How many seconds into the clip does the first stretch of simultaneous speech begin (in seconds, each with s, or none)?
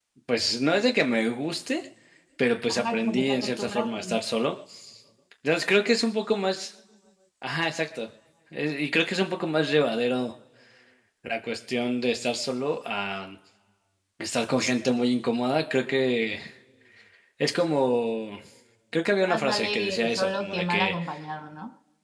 2.7 s